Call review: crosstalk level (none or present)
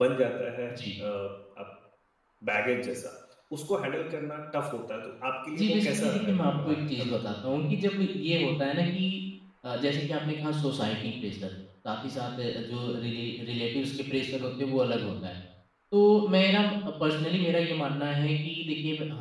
present